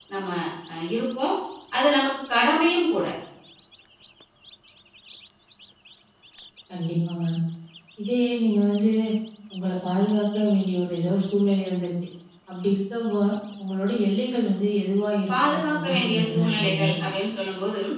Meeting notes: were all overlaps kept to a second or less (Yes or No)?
No